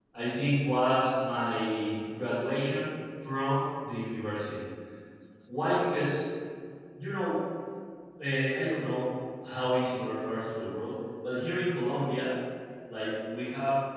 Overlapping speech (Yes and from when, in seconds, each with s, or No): No